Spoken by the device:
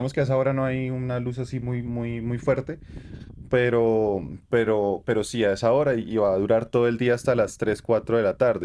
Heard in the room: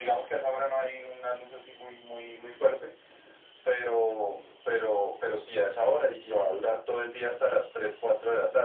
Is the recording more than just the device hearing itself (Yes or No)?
No